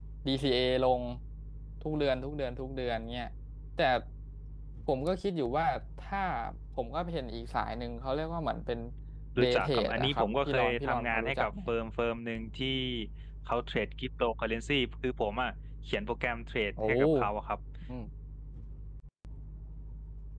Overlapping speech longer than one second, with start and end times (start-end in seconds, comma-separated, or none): 9.4-11.5